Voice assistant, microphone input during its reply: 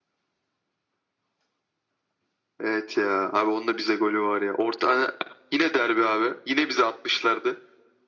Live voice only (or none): none